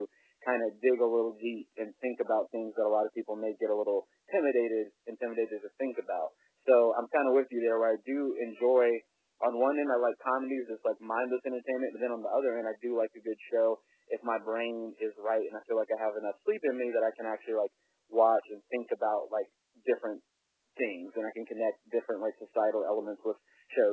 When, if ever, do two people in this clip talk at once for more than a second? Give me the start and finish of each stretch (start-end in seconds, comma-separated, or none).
none